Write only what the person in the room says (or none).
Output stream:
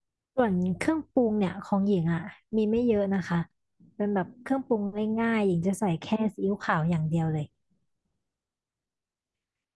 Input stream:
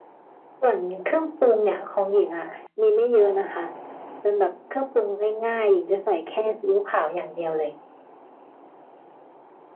none